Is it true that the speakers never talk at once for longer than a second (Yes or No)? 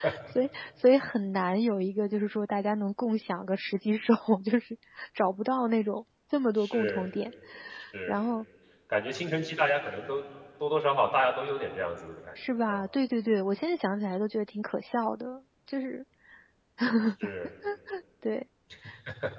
Yes